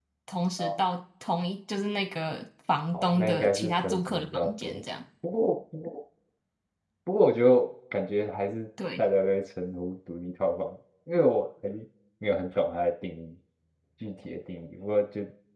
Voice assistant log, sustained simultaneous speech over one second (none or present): present